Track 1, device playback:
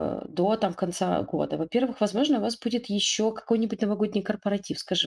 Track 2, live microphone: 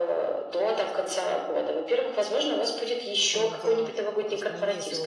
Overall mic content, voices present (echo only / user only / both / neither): both